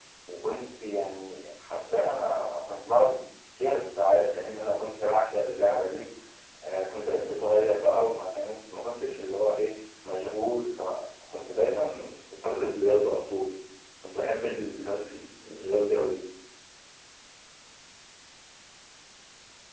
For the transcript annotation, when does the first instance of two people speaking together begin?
none

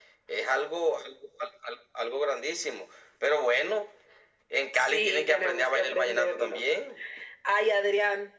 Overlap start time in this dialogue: 4.7 s

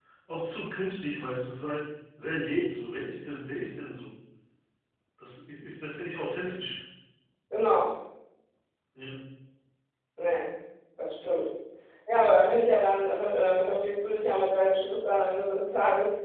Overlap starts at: none

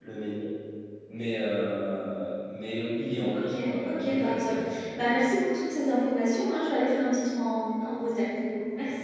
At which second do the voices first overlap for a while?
3.3 s

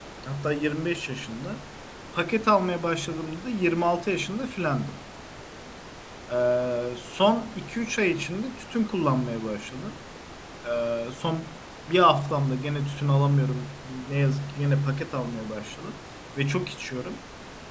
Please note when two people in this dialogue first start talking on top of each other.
none

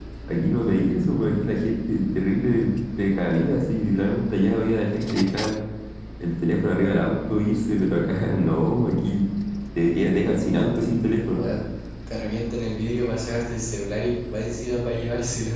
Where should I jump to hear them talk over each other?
none

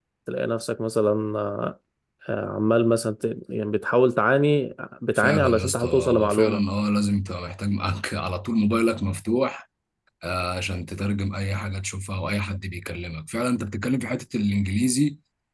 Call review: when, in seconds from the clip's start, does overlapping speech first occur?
5.2 s

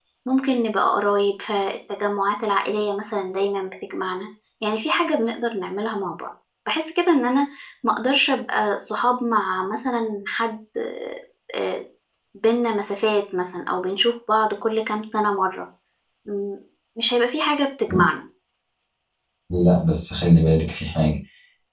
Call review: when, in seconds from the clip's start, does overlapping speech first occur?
none

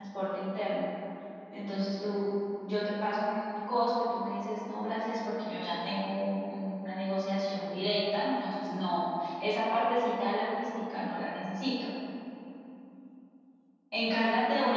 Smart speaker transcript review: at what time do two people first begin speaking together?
none

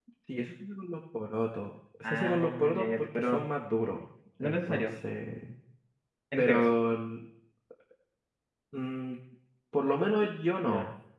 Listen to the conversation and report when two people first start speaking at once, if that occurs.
2.0 s

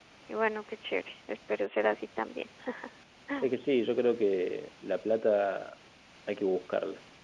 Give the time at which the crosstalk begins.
none

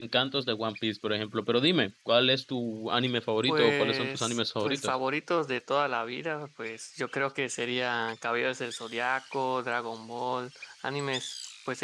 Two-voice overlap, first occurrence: 3.5 s

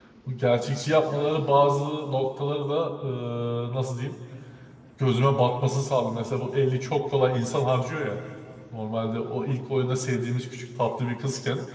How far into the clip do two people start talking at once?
none

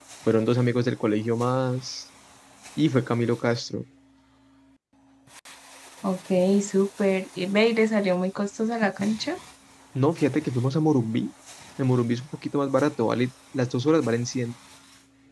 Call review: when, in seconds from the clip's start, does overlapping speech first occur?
none

